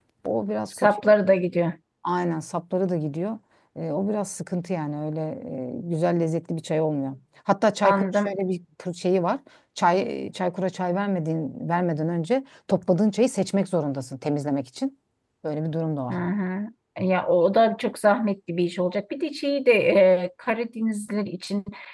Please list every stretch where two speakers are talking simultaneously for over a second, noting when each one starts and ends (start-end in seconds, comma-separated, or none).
none